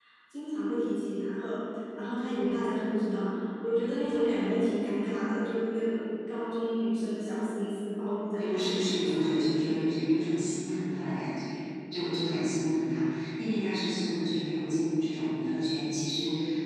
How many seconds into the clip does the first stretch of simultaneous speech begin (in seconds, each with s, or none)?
8.4 s